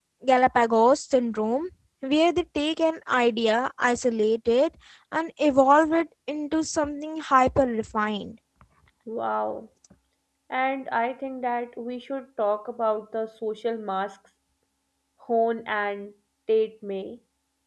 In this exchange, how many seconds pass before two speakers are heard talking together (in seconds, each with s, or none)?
none